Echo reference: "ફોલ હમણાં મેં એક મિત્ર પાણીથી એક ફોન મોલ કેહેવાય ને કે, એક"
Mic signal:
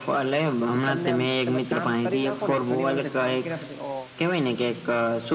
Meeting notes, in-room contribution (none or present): present